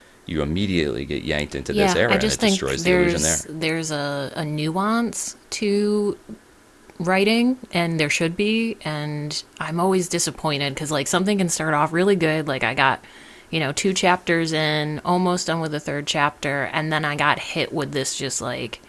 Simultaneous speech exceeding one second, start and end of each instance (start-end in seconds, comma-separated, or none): 1.7-3.4